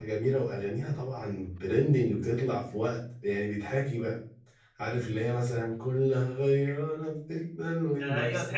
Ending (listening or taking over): taking over